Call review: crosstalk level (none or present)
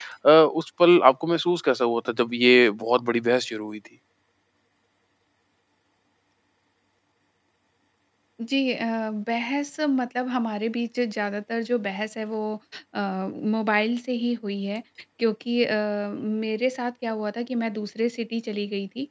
none